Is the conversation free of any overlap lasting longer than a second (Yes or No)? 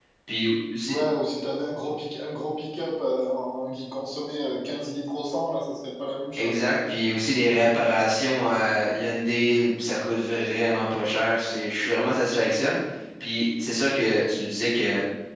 Yes